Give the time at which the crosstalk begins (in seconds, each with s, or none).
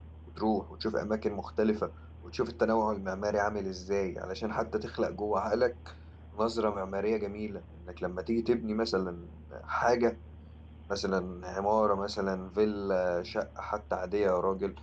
none